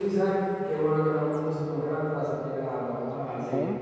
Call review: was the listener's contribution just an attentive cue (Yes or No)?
Yes